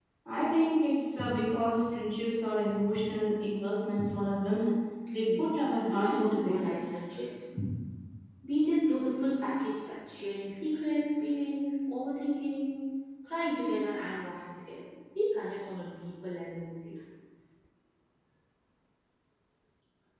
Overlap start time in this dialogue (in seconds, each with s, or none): 5.2 s